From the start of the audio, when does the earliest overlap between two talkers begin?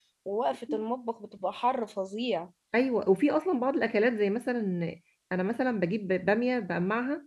none

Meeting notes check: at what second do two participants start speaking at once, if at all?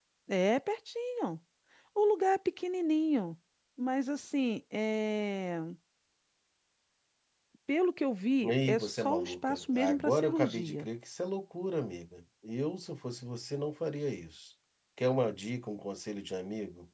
8.4 s

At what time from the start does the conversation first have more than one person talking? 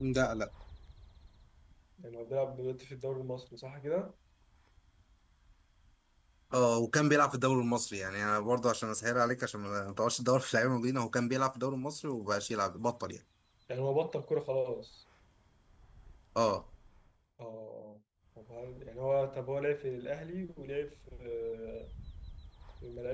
none

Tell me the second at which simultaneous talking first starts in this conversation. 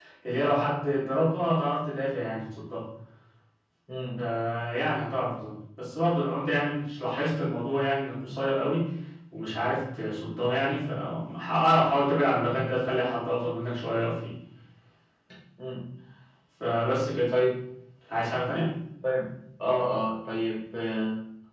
none

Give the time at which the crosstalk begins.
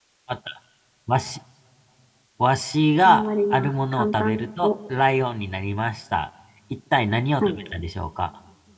3.0 s

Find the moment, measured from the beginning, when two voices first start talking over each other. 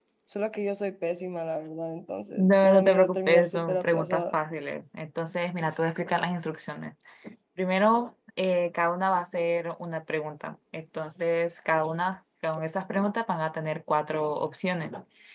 2.4 s

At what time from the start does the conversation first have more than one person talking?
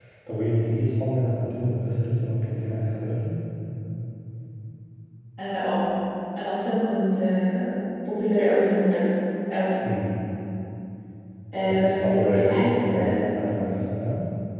11.7 s

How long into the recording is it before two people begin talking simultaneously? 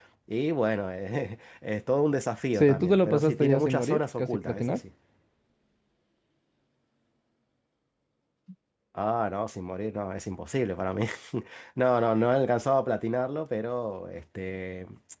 2.5 s

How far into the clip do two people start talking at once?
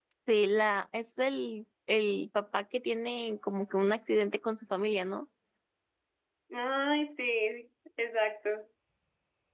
none

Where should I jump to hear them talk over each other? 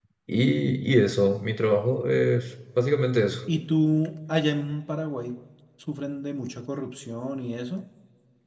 none

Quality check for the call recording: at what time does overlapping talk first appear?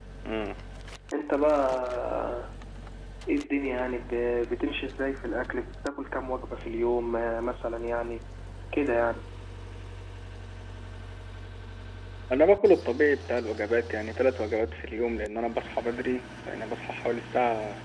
none

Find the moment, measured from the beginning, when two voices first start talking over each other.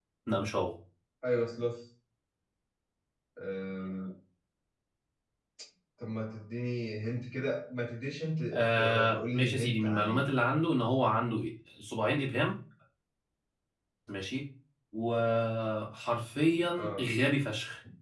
8.5 s

